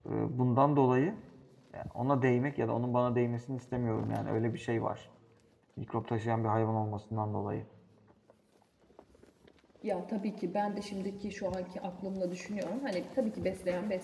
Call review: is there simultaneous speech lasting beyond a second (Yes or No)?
No